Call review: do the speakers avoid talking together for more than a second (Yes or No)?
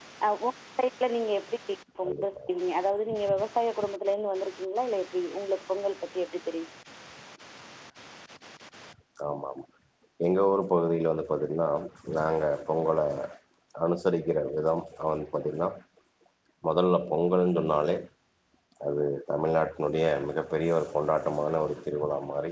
Yes